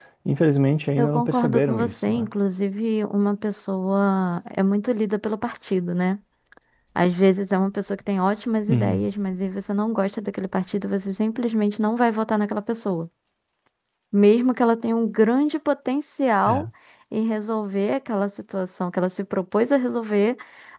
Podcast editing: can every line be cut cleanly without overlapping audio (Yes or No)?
No